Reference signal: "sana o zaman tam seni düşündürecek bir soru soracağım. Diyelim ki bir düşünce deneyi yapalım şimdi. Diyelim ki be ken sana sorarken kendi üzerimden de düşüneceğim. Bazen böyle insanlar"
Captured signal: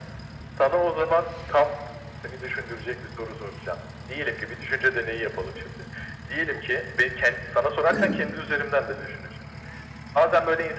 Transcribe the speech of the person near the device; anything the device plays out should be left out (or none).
Evet.